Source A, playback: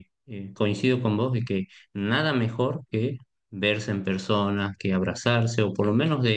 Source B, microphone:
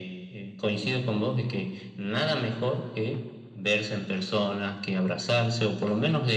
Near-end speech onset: none

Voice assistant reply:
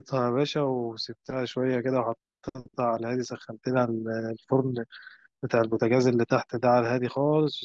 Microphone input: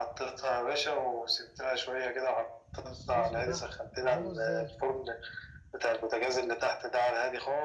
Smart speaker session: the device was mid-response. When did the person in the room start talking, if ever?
2.9 s

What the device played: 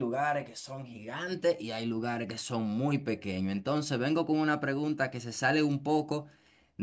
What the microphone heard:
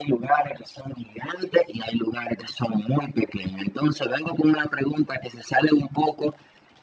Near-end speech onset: none

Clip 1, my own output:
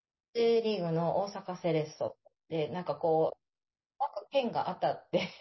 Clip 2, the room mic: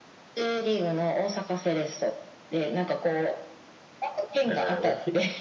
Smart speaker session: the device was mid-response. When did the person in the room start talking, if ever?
4.5 s

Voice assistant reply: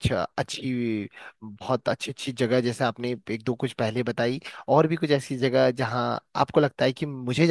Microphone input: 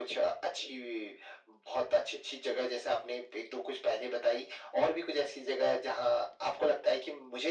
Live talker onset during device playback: none

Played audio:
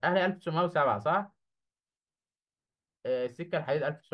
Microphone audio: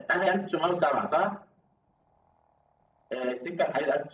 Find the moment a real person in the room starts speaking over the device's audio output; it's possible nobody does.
none

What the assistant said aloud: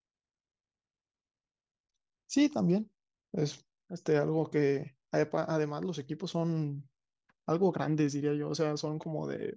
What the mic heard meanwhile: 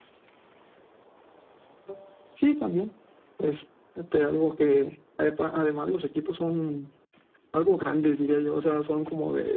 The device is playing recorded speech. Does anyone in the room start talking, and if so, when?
none

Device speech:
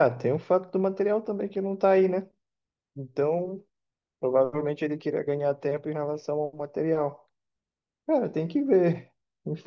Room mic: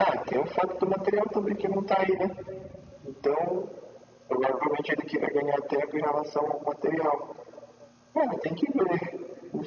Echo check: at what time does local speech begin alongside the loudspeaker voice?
none

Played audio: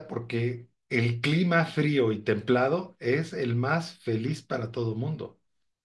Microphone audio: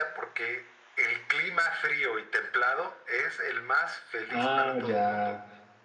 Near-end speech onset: 4.2 s

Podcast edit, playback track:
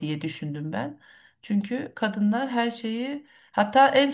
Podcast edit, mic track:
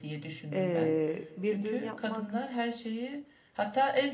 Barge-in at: 0.5 s

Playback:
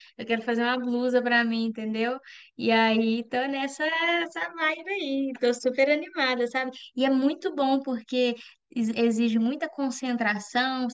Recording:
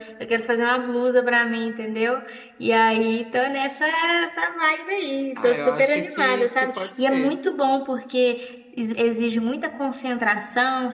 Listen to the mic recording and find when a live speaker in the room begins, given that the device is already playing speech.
5.3 s

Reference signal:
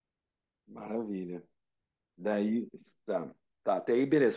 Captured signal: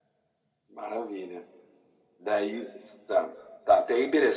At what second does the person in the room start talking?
none

